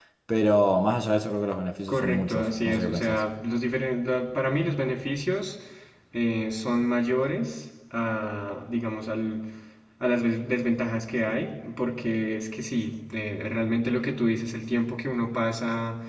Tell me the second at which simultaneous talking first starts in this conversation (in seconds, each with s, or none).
1.9 s